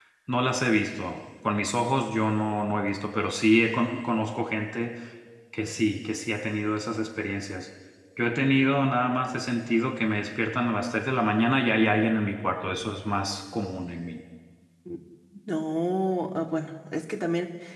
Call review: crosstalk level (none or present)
none